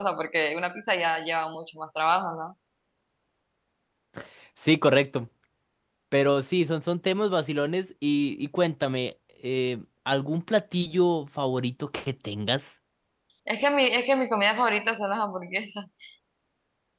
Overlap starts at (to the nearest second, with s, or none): none